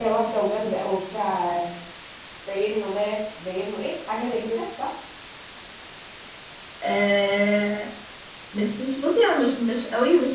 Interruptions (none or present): none